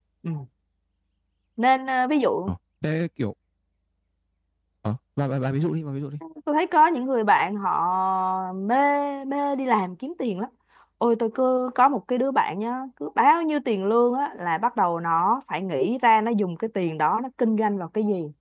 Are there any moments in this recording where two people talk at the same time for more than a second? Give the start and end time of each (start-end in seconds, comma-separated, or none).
none